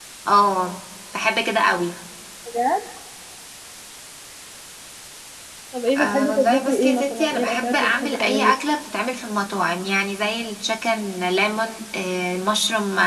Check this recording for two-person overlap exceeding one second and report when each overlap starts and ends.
6.0-8.5

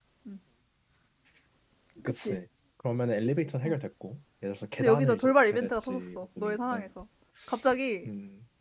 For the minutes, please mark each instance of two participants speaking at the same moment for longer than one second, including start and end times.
4.8-6.9

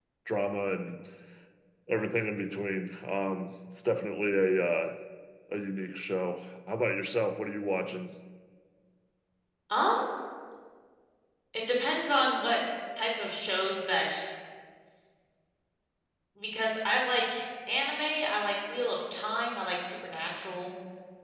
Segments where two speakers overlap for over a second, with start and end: none

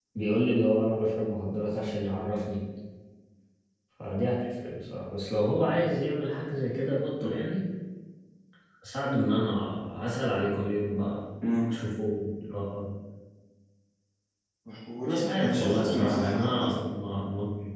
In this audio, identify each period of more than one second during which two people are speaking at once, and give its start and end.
15.1-16.7

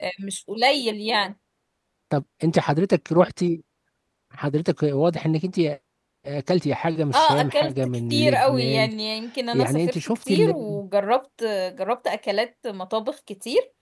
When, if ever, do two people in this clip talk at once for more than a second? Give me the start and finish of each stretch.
7.1-8.9, 9.5-10.8

